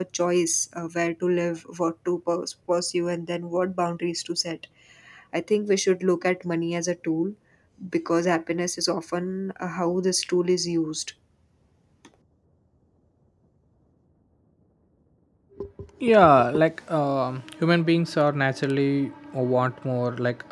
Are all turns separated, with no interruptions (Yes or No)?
Yes